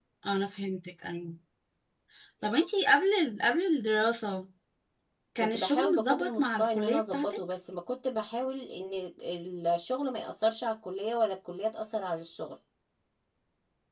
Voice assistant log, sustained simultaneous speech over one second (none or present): present